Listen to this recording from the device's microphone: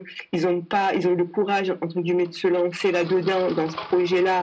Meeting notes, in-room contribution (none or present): none